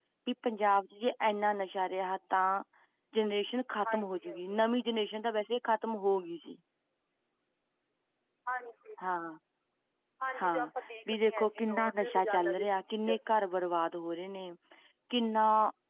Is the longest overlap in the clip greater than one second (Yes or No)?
Yes